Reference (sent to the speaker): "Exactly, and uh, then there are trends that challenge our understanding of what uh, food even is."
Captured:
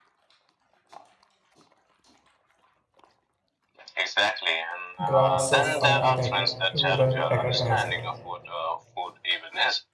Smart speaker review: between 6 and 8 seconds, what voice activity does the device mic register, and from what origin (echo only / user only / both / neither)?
both